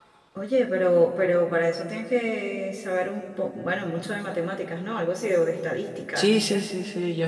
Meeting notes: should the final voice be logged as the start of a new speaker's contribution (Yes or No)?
Yes